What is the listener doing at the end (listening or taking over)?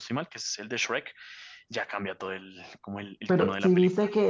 taking over